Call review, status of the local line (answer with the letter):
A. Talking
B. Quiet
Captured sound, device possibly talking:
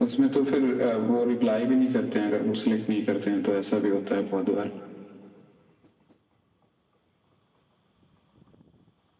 B